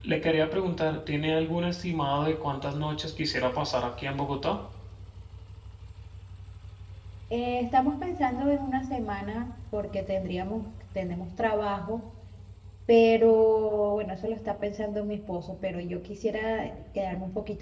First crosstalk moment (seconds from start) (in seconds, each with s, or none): none